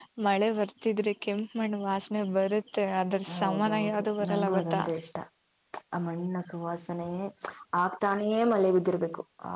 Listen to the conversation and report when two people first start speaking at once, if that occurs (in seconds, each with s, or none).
3.3 s